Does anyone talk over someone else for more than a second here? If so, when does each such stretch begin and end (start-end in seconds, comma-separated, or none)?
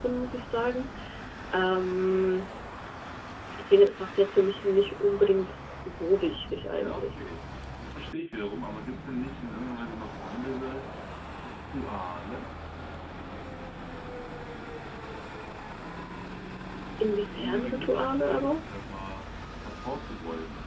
17.4-18.6